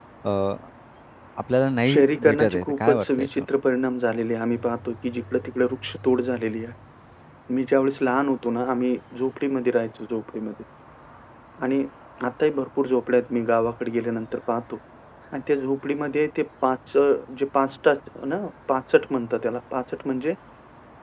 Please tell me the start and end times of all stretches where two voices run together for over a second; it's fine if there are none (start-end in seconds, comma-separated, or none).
1.9-3.5